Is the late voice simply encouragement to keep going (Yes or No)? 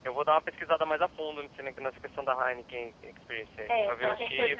No